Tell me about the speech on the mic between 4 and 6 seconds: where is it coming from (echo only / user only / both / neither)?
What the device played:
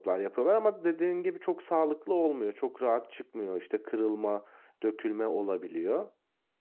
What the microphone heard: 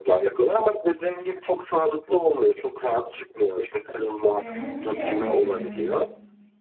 both